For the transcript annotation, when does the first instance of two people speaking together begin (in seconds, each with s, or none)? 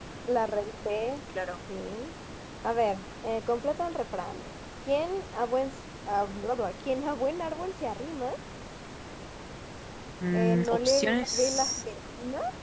10.3 s